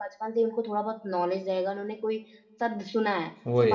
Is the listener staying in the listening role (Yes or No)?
Yes